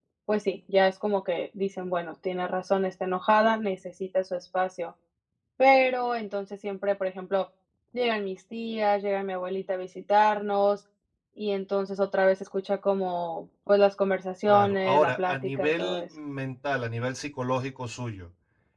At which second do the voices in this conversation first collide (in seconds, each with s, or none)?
14.5 s